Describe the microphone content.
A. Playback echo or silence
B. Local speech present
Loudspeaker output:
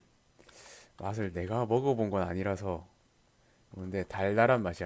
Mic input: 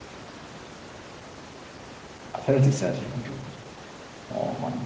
B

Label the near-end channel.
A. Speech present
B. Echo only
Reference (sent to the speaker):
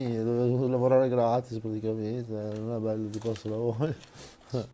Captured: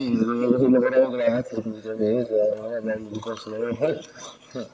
B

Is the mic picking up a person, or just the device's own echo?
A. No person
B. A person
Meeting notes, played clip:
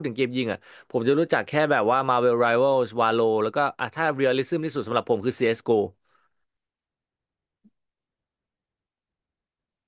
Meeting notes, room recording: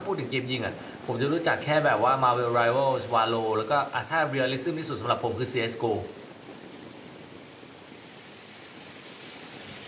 A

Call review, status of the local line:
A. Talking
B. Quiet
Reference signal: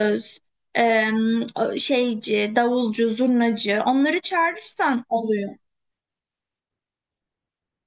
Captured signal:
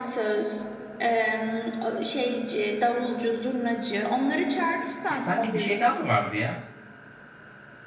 A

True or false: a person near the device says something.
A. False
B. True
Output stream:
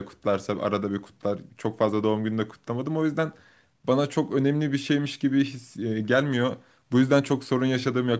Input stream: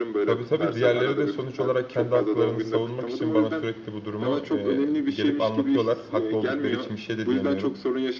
B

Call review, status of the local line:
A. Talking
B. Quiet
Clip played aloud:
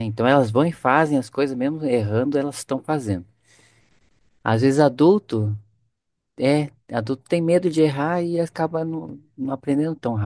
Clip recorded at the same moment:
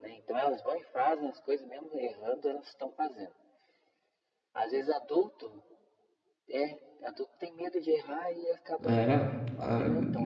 A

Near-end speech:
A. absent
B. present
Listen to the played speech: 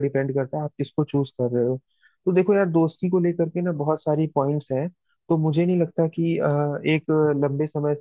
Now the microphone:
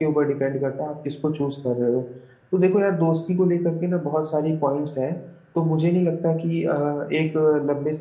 A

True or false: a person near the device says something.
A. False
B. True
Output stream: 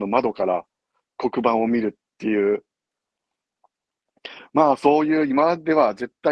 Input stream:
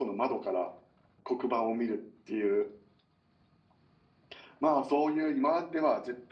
A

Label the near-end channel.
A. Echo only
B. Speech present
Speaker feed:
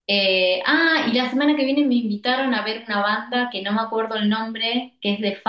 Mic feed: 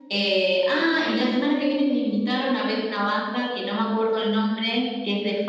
A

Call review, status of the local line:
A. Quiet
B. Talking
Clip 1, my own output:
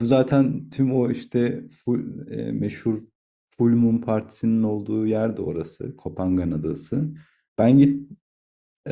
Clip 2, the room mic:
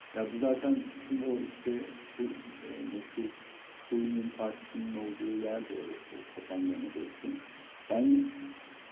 A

